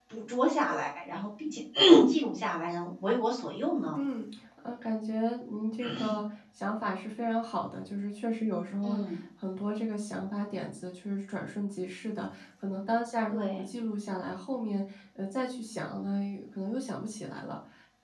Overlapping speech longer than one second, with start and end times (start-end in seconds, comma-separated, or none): none